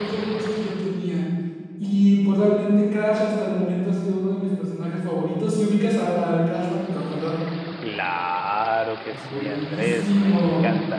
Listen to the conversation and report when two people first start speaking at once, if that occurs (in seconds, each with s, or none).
9.1 s